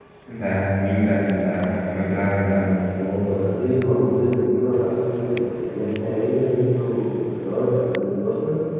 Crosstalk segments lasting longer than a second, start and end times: none

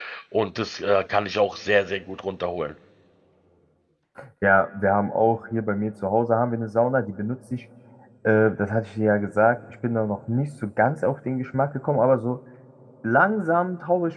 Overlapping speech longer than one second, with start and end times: none

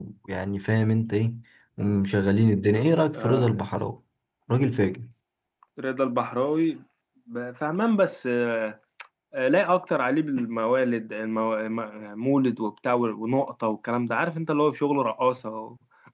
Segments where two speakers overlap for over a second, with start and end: none

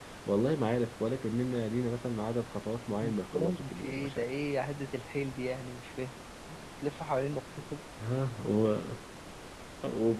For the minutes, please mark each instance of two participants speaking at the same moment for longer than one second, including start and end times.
3.0-4.2

